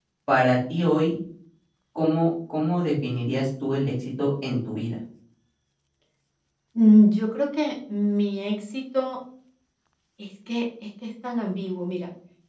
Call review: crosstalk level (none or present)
none